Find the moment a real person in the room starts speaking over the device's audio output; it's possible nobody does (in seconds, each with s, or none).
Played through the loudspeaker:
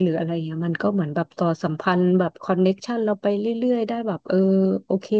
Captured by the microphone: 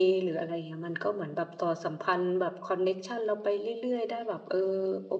none